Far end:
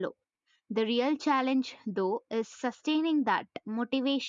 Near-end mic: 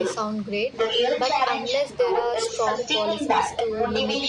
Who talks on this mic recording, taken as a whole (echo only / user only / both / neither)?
both